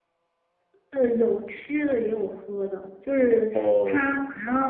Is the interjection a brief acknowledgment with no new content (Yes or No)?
Yes